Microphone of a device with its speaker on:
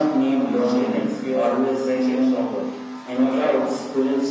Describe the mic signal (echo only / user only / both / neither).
echo only